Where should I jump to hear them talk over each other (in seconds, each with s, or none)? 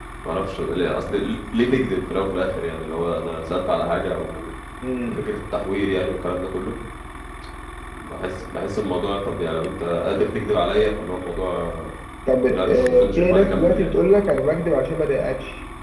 12.5 s